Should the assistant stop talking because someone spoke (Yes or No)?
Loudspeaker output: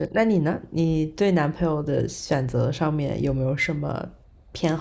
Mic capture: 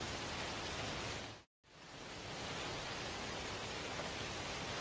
No